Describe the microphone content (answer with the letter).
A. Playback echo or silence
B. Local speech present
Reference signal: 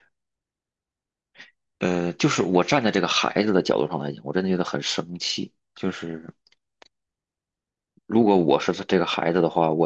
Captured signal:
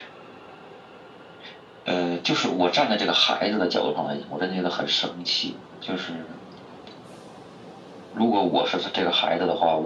A